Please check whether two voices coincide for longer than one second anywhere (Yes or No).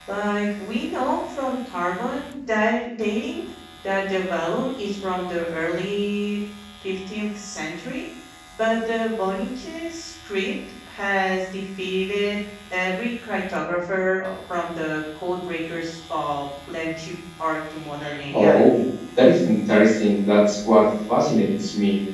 No